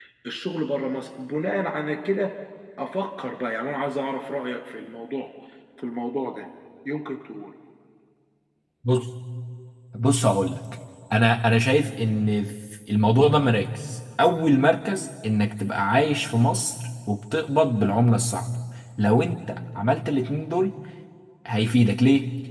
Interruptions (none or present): none